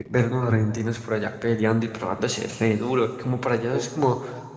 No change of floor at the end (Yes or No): Yes